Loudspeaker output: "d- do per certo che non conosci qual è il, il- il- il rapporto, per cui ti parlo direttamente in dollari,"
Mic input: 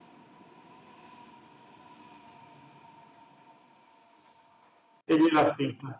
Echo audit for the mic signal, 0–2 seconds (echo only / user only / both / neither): neither